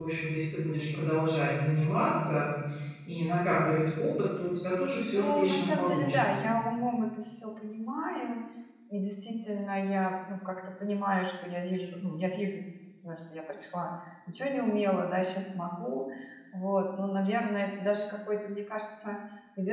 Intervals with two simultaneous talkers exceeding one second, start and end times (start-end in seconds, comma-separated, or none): 5.2-6.5